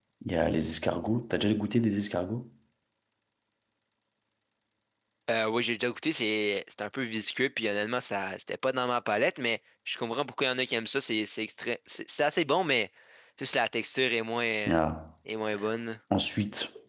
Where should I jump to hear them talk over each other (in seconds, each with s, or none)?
none